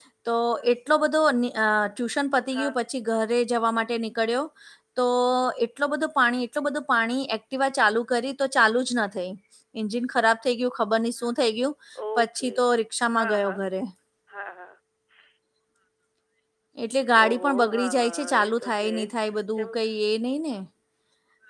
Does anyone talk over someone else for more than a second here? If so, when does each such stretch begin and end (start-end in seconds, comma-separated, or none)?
17.2-18.8